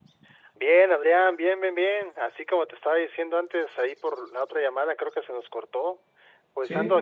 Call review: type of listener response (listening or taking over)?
listening